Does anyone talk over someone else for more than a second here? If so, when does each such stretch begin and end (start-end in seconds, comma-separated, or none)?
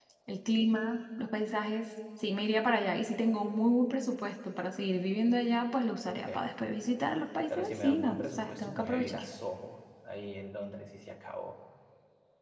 7.5-9.2